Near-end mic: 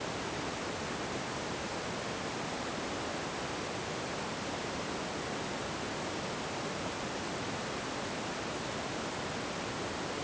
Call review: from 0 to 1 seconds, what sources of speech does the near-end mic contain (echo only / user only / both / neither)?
neither